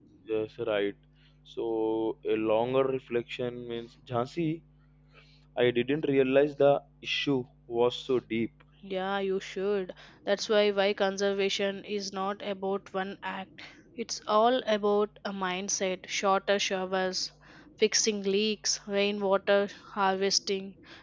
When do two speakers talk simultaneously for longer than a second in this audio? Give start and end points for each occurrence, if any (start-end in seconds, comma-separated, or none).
none